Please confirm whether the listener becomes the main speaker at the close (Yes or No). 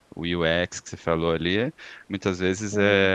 No